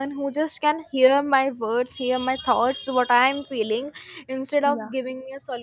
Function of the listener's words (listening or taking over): listening